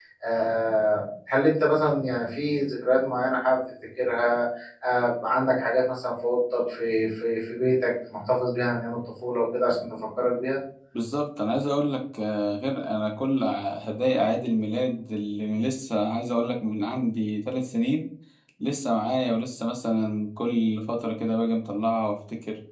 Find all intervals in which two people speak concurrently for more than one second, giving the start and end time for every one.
none

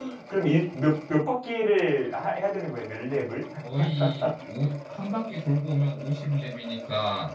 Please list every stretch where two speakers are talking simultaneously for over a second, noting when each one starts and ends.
none

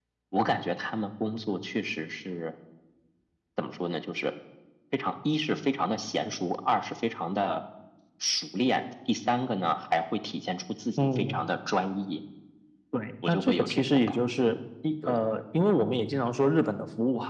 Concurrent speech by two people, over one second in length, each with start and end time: 13.3-14.5

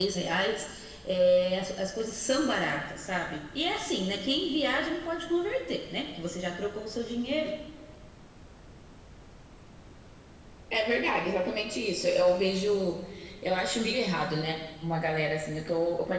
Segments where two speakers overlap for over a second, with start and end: none

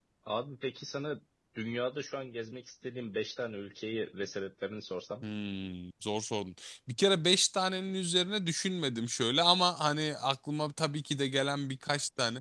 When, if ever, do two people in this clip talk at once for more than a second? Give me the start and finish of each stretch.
none

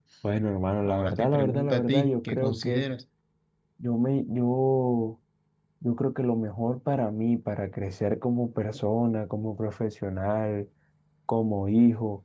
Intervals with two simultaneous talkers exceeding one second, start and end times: 0.8-2.9

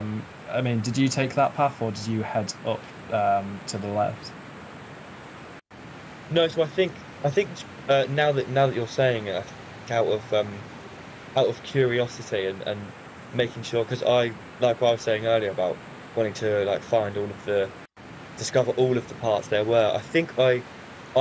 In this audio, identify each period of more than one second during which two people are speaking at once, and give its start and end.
none

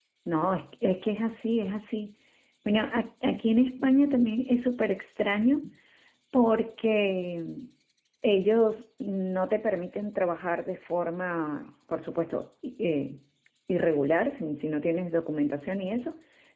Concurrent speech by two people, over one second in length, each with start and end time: none

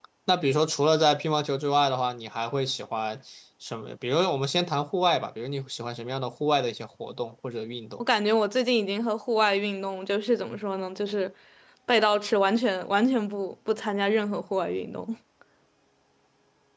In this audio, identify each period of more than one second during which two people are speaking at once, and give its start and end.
none

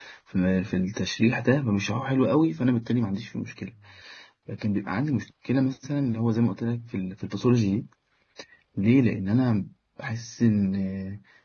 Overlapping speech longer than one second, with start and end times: none

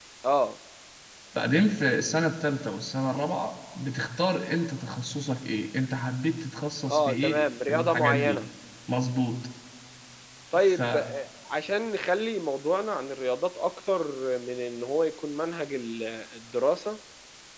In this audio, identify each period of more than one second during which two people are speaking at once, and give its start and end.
6.9-8.4

